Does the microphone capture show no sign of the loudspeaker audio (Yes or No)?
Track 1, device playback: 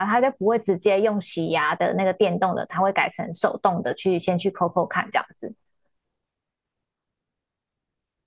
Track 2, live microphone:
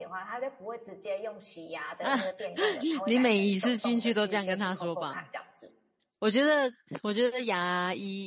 No